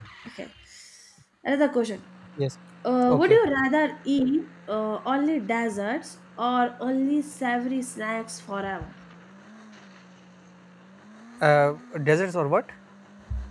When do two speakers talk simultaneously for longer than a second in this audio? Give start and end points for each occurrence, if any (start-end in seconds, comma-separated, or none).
none